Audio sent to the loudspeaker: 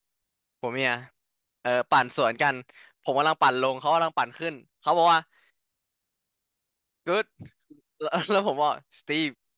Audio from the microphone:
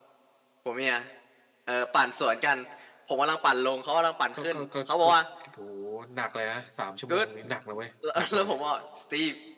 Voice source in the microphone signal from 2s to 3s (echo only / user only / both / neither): echo only